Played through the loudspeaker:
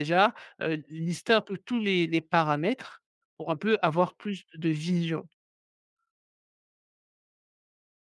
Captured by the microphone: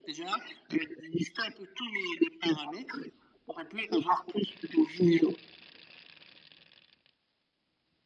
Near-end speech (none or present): none